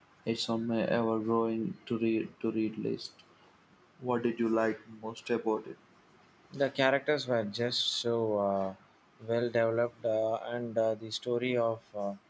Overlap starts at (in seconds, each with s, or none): none